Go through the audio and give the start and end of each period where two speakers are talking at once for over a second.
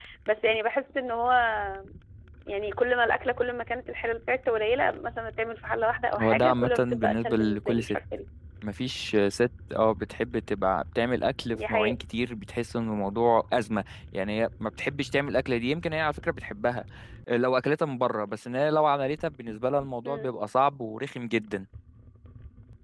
6.2-8.0

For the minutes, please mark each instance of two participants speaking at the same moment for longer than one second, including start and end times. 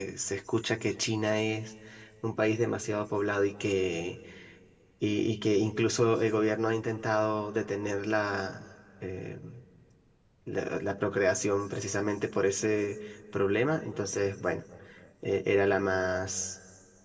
none

